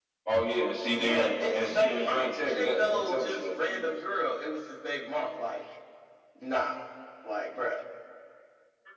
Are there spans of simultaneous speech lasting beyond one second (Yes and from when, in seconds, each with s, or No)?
Yes, from 0.9 s